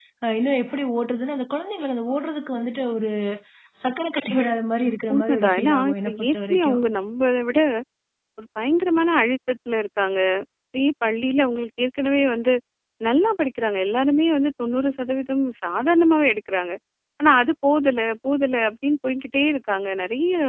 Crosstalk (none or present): present